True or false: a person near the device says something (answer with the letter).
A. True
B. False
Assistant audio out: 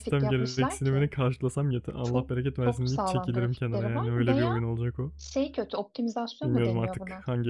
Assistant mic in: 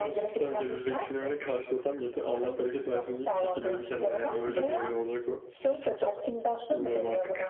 B